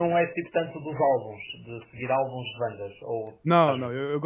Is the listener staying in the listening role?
No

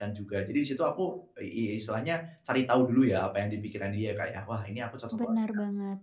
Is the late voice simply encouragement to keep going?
No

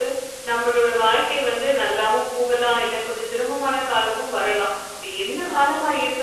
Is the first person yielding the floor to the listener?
No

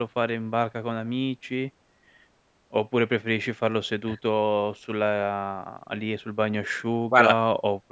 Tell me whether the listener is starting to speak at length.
No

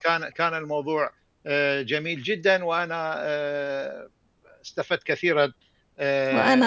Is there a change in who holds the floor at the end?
Yes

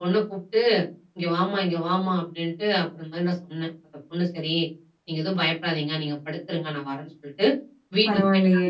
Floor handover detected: No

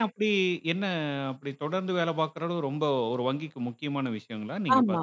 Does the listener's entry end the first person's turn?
Yes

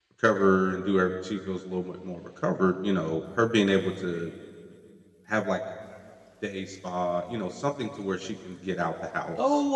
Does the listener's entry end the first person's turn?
Yes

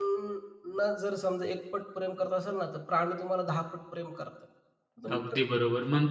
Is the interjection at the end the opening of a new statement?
Yes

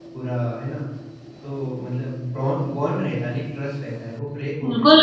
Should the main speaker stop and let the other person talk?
Yes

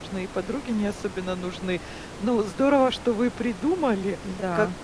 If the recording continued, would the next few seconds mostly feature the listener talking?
No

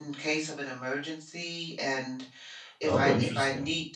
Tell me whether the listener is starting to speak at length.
No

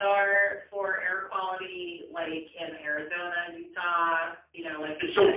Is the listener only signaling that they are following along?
No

